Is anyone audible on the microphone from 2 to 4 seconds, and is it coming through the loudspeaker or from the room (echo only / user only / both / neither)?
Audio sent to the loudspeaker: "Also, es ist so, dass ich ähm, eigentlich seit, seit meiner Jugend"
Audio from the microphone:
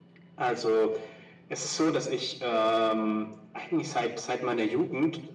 echo only